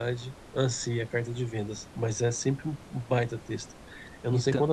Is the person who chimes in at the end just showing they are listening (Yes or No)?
Yes